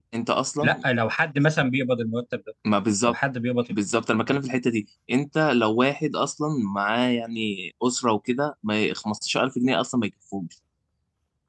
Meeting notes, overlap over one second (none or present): none